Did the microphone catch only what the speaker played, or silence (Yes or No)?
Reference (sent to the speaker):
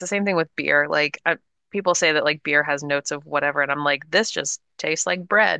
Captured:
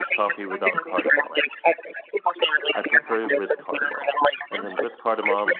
No